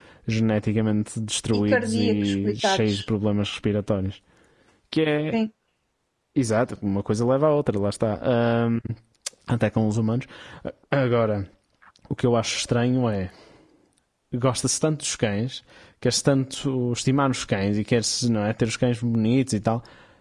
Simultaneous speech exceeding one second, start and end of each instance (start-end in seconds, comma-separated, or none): 1.5-2.9